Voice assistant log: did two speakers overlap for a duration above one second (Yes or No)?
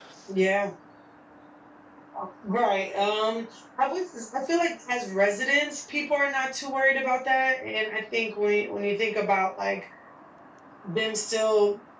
No